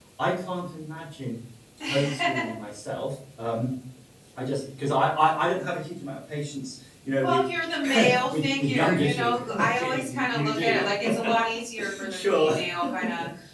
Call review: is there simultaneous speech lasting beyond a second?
Yes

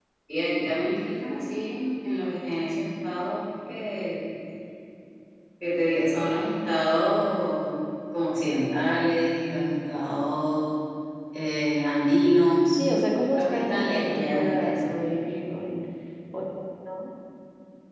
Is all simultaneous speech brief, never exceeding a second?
No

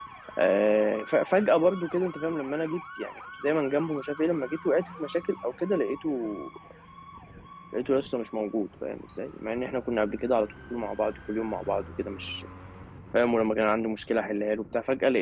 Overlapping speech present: No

